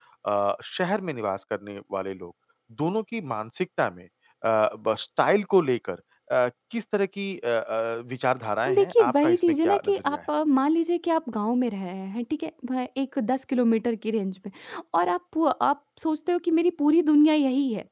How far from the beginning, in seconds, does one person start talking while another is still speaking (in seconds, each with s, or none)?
8.7 s